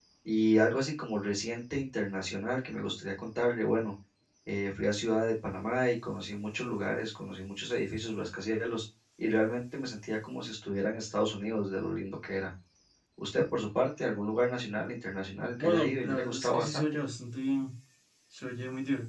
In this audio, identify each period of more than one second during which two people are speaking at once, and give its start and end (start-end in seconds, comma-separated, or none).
15.6-17.0